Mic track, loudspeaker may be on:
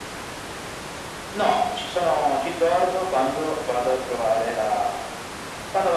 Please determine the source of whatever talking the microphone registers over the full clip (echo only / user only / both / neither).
echo only